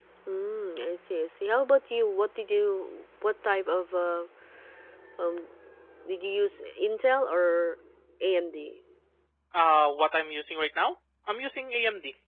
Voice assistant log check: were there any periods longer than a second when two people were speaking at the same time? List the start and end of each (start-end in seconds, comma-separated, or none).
none